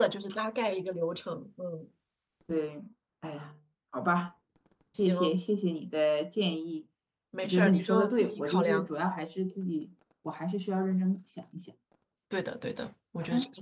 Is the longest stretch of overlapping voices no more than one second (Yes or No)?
No